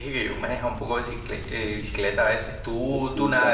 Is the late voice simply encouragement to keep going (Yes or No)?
No